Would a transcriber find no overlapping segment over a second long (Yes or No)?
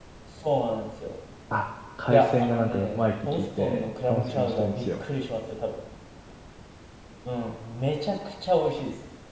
No